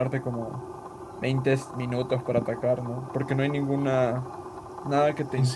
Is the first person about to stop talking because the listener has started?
Yes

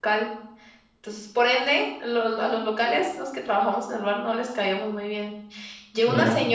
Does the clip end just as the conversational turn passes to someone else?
No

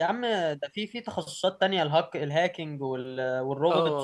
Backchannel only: No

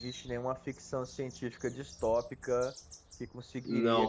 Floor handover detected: No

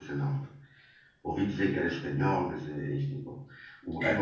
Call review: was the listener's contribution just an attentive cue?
Yes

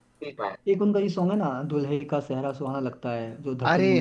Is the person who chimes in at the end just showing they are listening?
No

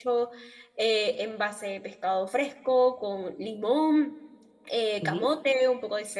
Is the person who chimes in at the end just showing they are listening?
Yes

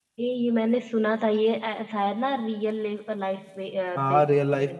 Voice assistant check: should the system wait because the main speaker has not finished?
No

